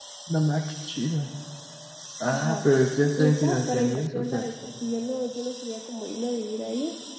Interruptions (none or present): present